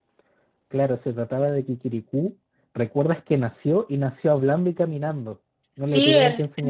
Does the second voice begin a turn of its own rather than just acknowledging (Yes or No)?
Yes